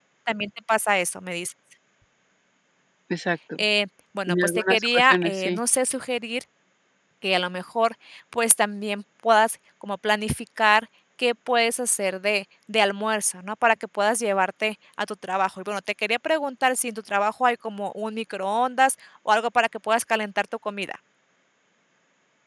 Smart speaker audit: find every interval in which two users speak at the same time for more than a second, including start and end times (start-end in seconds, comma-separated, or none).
4.3-5.6